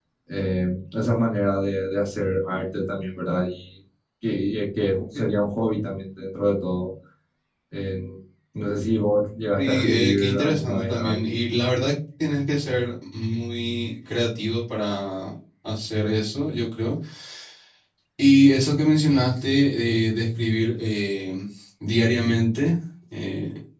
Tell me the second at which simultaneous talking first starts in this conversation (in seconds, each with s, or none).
9.6 s